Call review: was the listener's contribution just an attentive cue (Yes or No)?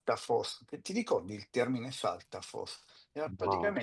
Yes